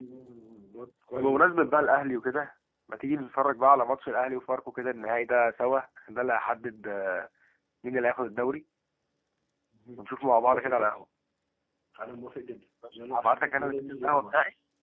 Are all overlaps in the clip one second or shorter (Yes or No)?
No